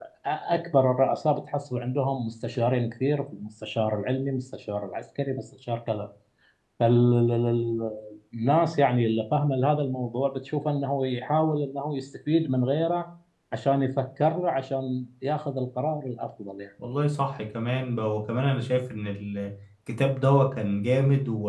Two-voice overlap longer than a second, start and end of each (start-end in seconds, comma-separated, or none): none